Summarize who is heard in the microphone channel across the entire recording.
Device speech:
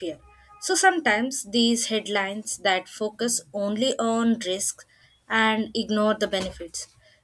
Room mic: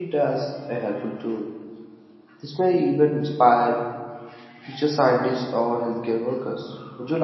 user only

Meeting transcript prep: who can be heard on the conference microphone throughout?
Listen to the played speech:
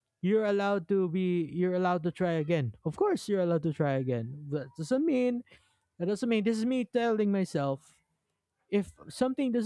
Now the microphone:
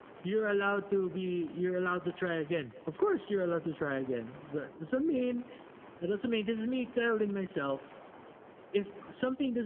echo only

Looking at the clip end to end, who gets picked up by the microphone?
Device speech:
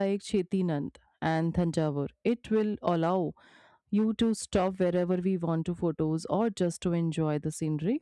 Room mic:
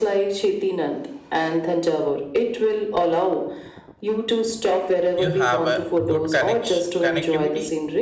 both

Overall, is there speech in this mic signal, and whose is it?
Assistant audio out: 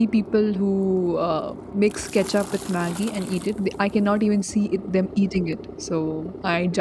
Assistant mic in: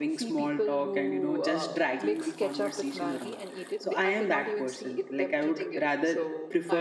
both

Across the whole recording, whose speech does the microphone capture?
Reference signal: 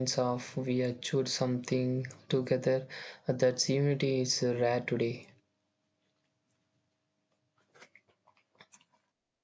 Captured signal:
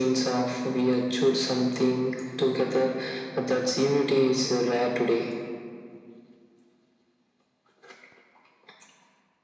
echo only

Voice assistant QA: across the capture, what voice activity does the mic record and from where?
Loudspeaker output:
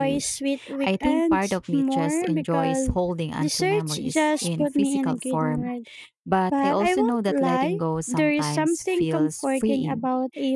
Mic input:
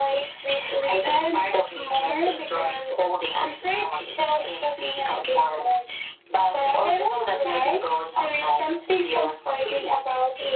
echo only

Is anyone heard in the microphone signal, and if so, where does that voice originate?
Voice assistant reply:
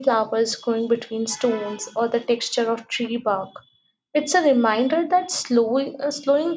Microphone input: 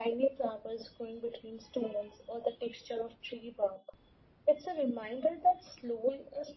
echo only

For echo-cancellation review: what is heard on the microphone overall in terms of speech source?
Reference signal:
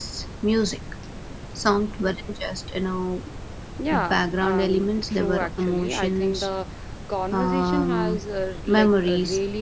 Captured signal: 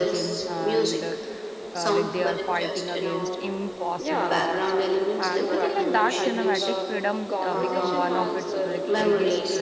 both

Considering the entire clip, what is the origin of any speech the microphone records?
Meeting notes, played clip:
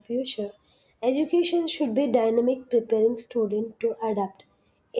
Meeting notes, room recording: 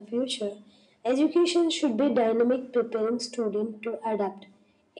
echo only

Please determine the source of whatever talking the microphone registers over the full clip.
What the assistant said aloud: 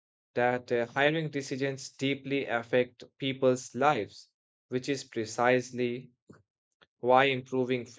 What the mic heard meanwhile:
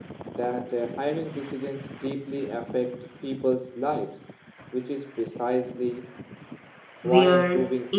both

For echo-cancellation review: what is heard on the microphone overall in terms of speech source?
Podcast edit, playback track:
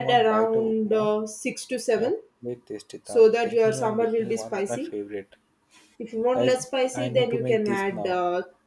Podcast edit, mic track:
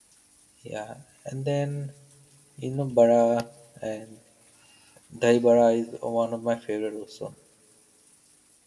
user only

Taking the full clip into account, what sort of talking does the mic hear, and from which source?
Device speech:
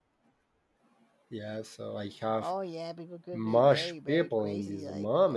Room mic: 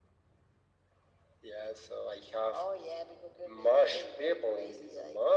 echo only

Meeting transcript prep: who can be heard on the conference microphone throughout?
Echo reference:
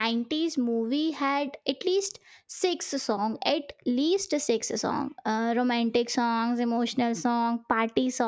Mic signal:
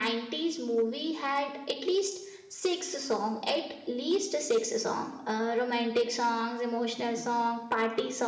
echo only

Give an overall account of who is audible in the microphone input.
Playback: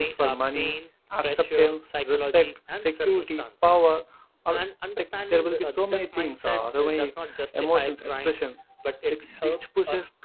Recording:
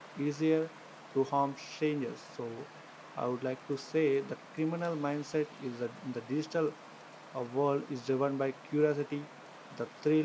user only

